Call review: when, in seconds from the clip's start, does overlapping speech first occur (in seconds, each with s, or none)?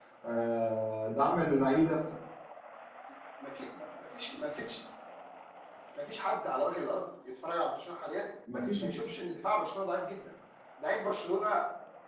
none